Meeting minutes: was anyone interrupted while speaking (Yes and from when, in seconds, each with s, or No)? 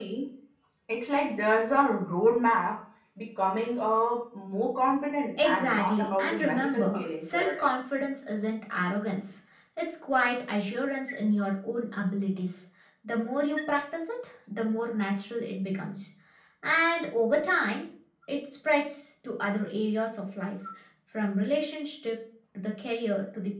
Yes, from 5.4 s